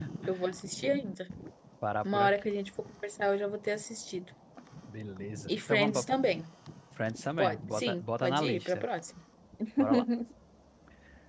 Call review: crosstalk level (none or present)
present